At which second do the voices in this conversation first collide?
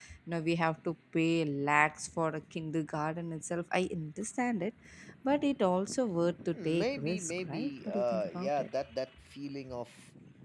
6.5 s

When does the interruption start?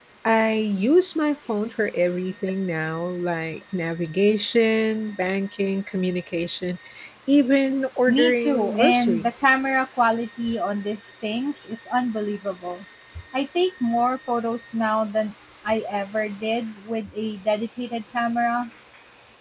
8.1 s

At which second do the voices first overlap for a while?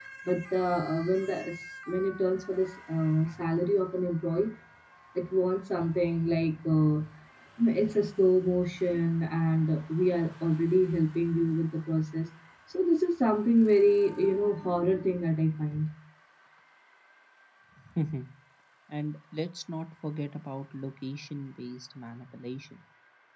none

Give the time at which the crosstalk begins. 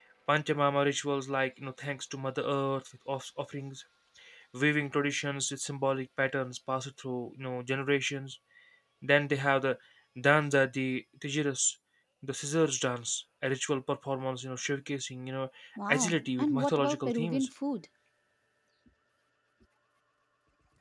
15.9 s

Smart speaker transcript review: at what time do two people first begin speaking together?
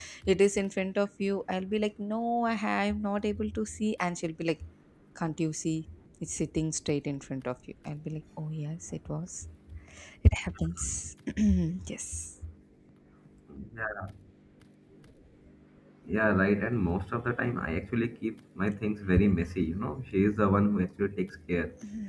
none

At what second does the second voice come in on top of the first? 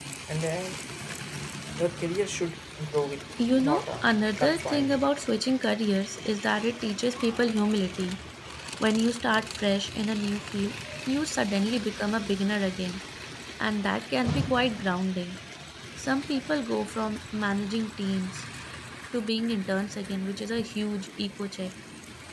3.4 s

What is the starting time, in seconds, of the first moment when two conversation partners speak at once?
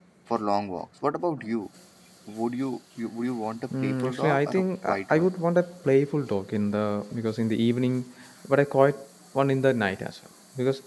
3.7 s

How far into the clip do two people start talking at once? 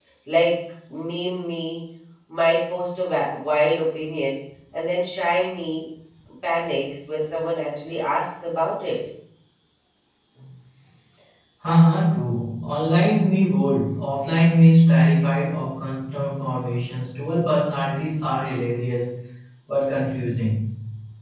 none

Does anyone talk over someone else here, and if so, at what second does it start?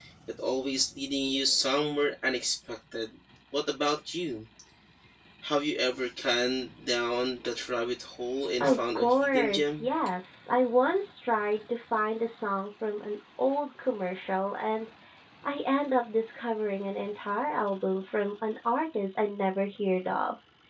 8.6 s

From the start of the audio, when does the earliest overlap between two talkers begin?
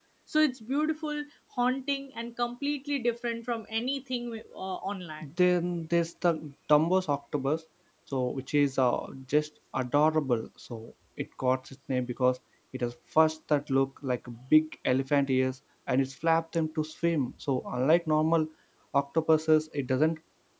none

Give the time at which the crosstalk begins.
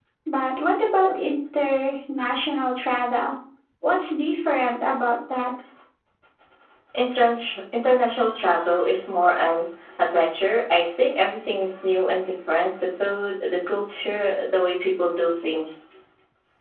none

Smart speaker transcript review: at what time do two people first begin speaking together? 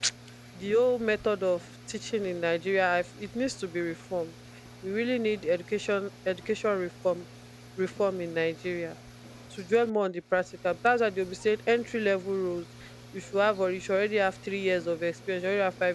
none

